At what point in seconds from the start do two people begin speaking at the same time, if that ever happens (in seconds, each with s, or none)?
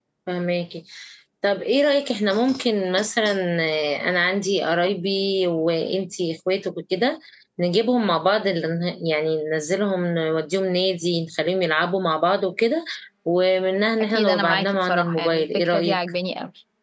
14.1 s